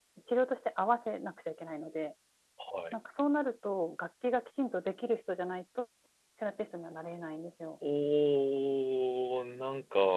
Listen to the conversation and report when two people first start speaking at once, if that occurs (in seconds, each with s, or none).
none